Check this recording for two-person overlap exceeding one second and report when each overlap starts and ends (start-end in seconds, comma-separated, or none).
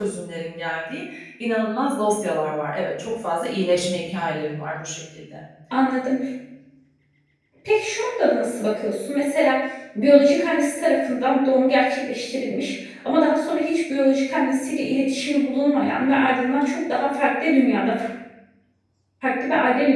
none